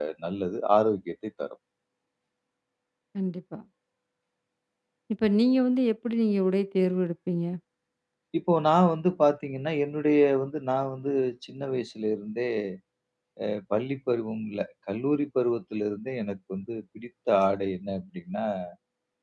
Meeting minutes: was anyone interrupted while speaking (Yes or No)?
No